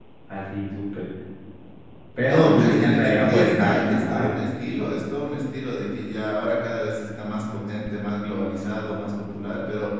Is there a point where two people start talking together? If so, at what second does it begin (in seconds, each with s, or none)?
2.2 s